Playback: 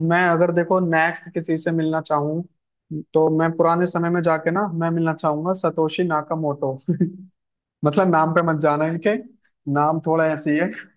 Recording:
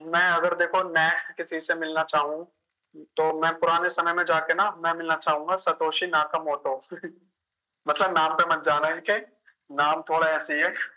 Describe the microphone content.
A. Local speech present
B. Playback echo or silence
B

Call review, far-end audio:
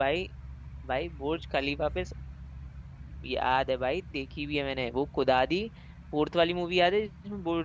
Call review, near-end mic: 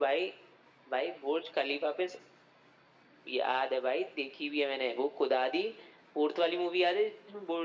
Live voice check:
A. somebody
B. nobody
B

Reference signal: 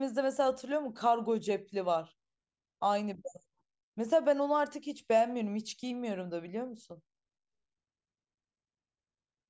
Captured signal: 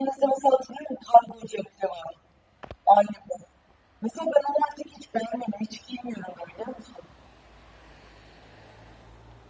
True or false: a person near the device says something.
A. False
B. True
A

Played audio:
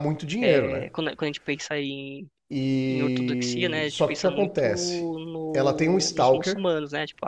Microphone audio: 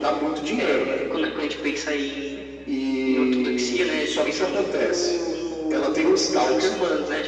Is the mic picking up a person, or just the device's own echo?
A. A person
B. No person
B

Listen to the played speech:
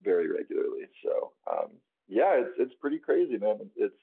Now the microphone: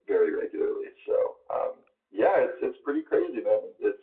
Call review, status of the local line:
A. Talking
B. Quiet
B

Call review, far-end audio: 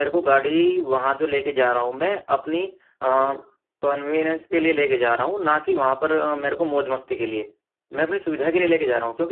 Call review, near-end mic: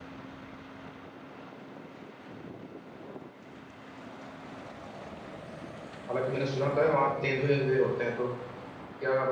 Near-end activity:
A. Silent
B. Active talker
B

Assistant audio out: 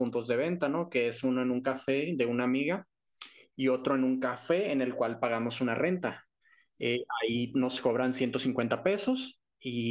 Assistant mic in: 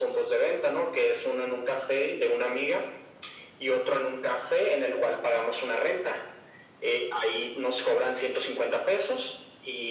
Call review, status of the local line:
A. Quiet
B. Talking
A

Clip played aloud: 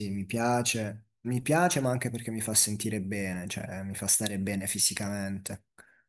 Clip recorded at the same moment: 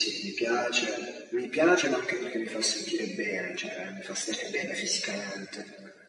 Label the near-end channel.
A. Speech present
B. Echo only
B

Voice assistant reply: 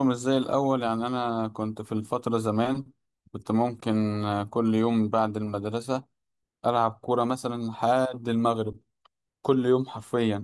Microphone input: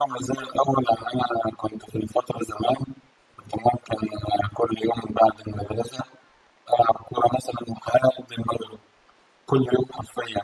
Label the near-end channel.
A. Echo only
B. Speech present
A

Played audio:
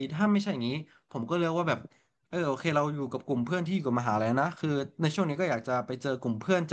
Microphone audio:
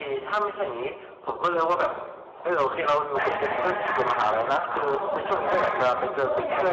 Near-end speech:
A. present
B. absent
A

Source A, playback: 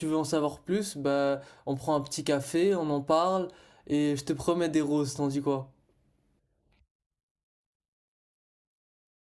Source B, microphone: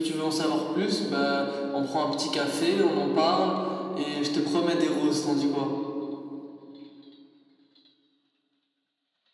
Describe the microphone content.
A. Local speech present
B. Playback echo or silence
B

